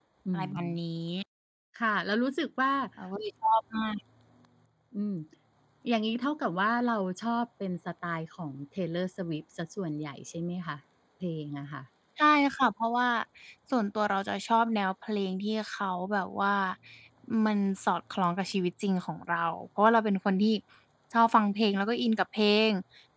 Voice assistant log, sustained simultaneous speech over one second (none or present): none